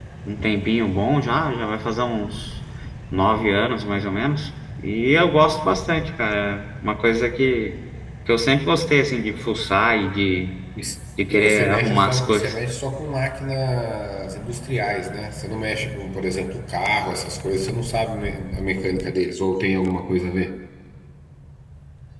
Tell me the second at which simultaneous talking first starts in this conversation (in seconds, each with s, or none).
11.3 s